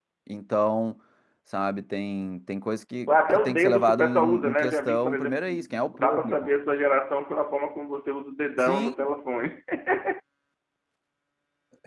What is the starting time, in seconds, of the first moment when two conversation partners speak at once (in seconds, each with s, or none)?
3.1 s